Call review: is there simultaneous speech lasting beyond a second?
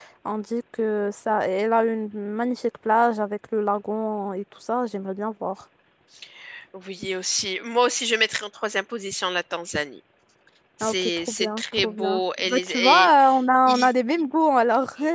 Yes, from 10.8 s

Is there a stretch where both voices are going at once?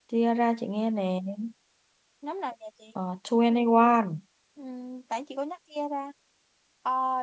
No

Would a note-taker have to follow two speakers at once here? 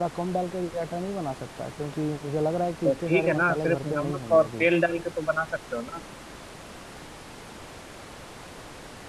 Yes, from 2.8 s

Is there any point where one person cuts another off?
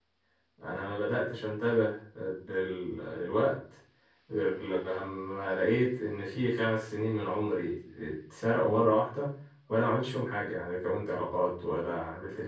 No

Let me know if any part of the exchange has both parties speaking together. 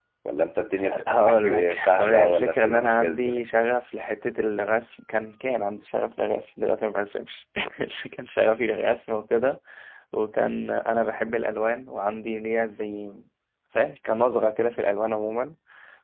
Yes, from 0.8 s

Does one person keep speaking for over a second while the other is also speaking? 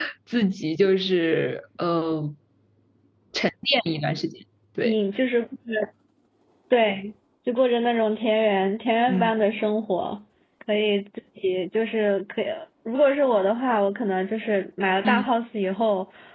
No

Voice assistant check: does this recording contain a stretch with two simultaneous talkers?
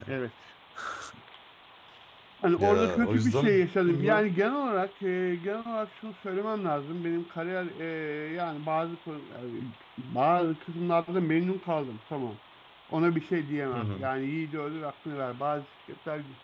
Yes, from 2.6 s

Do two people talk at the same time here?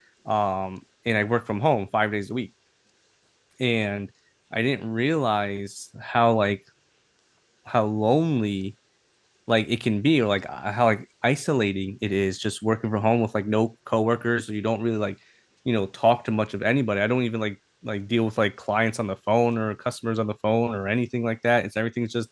No

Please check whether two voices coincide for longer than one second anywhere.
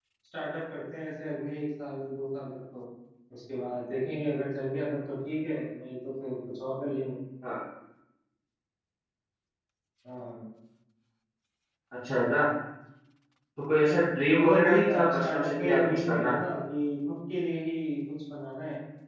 Yes, from 14.4 s

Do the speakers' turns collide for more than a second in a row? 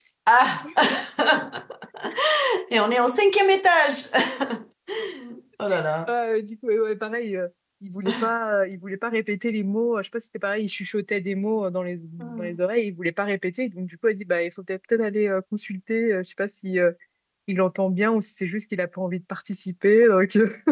No

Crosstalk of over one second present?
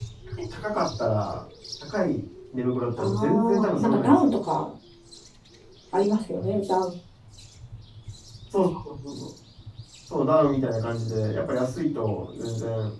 Yes, from 3.0 s

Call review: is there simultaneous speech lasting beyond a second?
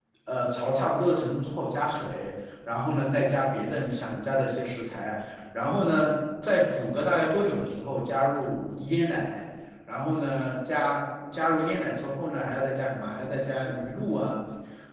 No

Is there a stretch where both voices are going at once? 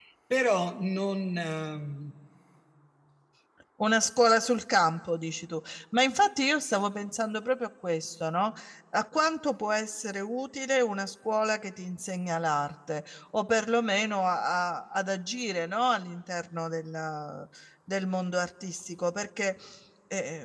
No

